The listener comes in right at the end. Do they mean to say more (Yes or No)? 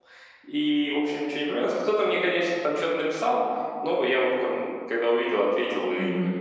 Yes